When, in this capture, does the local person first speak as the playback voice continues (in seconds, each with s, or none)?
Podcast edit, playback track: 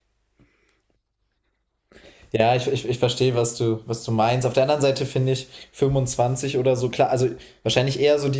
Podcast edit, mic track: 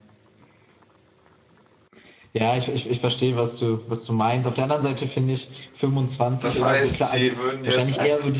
6.4 s